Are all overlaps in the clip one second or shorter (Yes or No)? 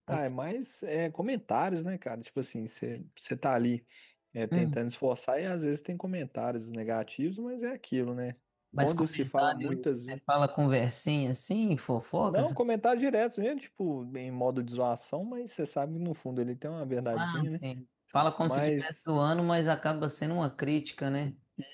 No